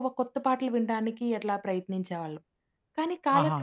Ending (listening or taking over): listening